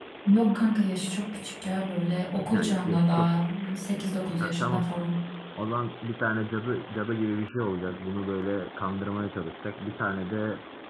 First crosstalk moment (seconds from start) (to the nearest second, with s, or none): 3 s